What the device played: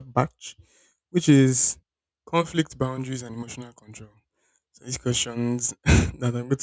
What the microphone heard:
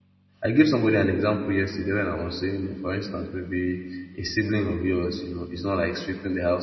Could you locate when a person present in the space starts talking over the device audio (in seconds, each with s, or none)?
0.4 s